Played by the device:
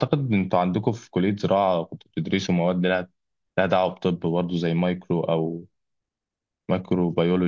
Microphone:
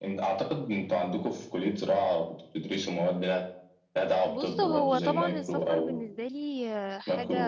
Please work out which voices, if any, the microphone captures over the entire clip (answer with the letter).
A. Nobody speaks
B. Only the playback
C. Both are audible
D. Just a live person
C